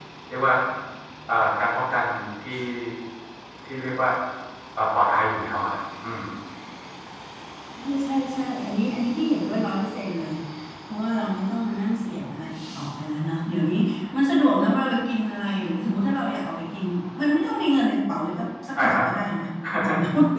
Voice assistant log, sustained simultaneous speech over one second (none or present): none